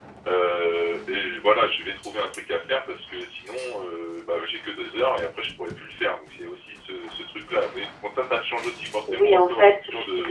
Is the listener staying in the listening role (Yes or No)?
No